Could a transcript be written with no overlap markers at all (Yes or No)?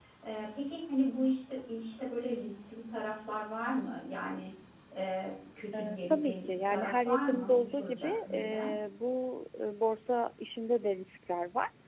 No